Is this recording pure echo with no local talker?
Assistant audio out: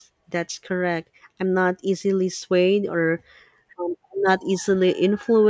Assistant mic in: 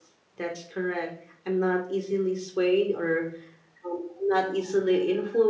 Yes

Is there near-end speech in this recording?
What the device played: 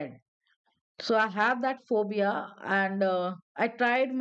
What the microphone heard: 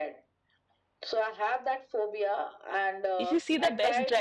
Yes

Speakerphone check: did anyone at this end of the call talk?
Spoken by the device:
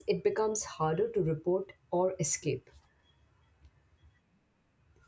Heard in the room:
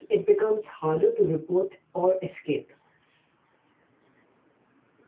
No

